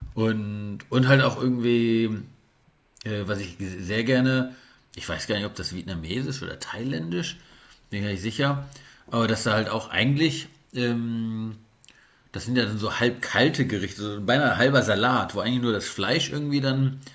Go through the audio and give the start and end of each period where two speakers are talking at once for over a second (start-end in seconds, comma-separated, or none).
none